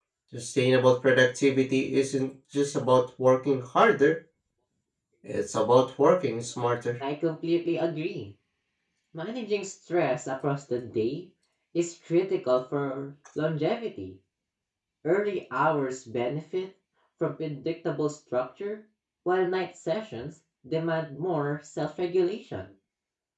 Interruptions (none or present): none